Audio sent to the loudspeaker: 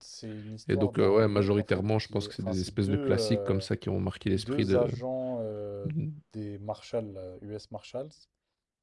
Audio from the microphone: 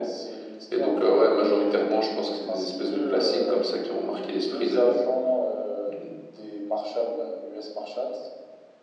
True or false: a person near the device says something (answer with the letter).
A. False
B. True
A